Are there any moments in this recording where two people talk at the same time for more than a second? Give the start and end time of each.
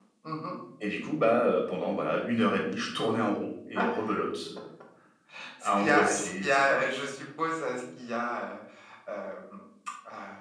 5.6-6.8

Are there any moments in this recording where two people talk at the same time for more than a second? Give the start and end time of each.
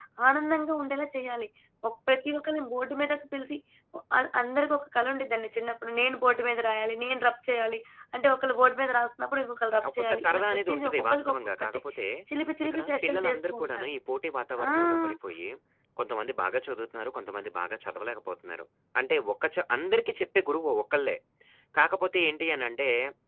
9.9-11.8, 12.7-13.9

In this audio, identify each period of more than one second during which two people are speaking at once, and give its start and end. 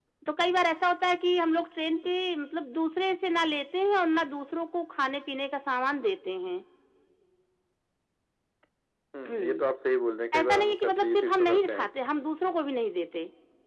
10.4-11.9

